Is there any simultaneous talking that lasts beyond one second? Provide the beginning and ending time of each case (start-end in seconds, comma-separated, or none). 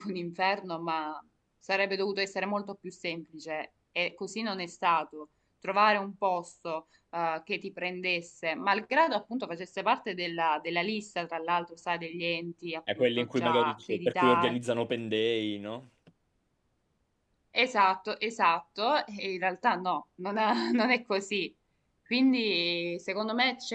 13.0-14.6